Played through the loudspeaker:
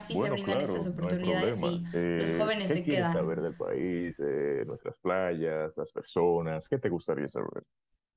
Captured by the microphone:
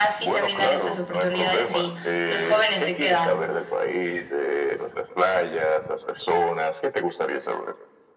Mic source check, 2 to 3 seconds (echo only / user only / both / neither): echo only